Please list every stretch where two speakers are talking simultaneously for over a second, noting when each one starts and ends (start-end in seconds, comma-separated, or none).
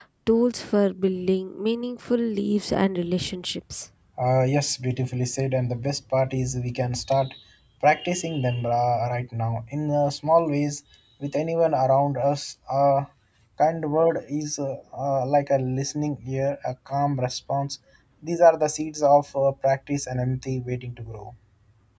none